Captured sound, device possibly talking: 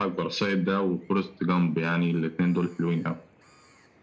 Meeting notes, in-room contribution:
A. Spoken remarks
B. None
B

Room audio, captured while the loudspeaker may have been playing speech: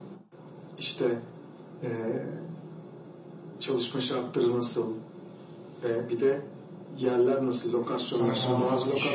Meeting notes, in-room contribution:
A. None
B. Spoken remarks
B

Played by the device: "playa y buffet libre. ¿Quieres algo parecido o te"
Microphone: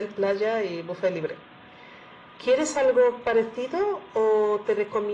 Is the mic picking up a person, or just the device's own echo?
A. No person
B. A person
A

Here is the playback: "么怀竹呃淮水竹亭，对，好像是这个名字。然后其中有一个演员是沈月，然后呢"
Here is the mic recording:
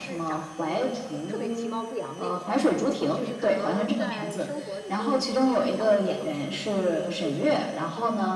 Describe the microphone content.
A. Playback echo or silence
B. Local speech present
B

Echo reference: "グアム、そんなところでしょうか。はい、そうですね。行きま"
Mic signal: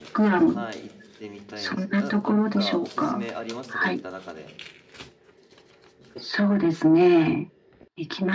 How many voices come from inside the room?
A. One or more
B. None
A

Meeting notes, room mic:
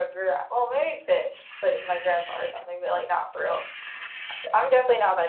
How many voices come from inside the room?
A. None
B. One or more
A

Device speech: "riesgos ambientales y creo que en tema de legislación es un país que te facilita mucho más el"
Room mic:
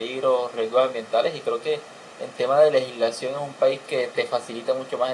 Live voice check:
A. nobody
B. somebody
A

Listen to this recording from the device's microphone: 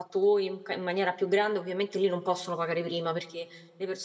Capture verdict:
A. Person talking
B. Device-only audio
A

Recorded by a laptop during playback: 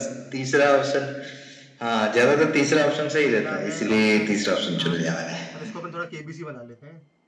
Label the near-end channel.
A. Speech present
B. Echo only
A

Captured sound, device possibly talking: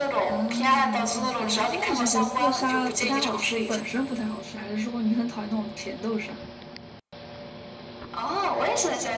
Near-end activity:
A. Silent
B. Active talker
B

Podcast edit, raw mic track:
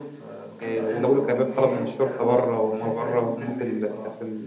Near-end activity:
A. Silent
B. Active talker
B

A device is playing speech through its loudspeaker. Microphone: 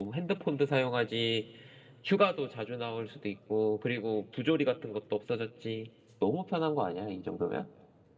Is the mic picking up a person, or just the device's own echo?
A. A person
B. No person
A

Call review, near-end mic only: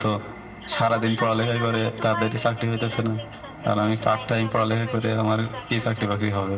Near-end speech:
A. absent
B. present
B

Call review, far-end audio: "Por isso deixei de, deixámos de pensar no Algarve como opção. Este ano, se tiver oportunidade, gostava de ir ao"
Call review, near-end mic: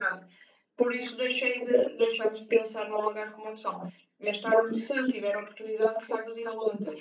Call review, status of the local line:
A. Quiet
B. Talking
A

